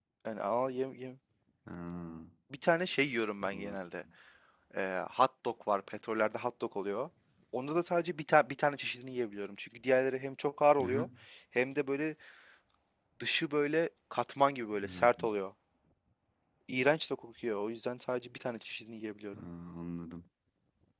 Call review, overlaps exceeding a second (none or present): none